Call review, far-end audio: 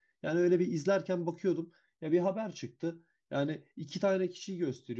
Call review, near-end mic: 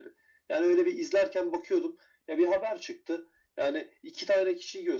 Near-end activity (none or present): none